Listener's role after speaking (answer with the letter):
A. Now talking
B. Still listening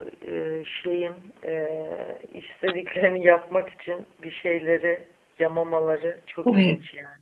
A